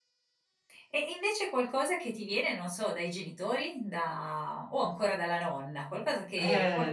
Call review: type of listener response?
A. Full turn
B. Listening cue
A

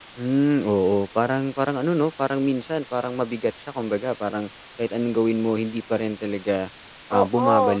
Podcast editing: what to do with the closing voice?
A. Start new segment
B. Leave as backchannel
A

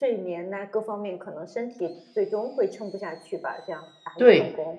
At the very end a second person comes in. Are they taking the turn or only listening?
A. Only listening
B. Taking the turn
B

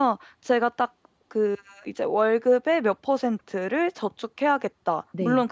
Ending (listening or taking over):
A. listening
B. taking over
A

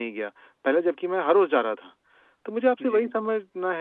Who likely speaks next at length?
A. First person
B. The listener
A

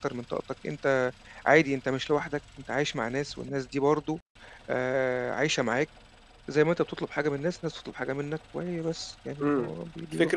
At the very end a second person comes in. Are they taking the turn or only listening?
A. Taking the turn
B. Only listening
A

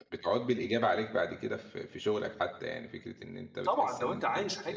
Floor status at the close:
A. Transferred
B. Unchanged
A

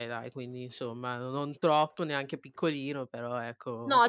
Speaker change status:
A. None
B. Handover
B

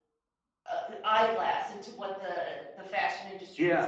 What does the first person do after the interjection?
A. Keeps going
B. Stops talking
B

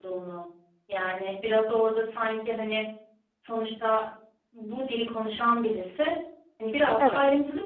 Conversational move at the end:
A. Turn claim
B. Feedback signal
B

